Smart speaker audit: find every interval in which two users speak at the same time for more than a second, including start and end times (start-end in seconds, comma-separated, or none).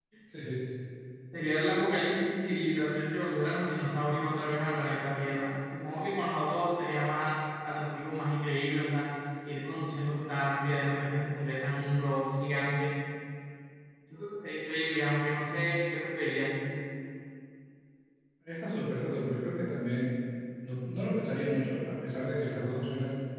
none